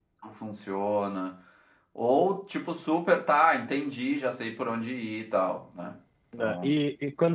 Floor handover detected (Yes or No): Yes